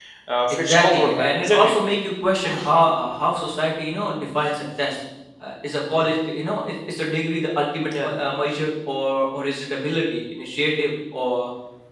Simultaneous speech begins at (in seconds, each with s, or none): 0.5 s